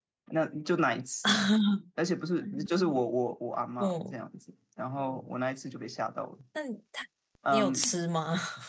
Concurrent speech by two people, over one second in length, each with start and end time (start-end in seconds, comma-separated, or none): none